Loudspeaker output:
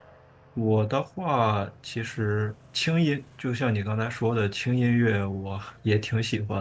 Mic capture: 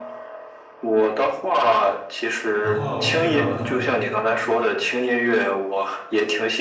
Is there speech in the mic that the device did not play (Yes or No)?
Yes